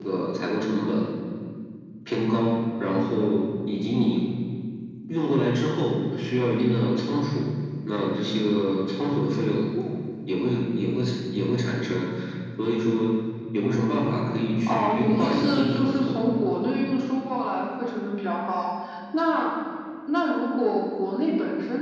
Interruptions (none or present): present